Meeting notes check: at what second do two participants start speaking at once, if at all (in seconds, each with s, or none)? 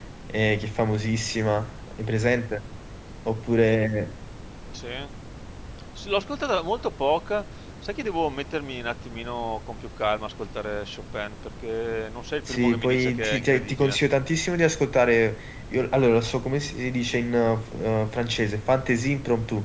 12.5 s